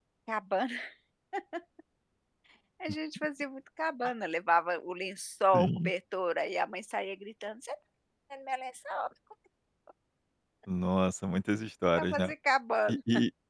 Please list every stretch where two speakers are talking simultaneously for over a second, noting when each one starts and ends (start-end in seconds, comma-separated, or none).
none